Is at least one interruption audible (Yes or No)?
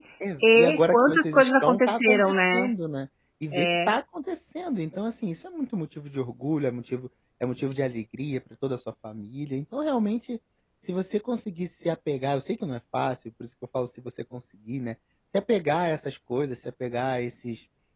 Yes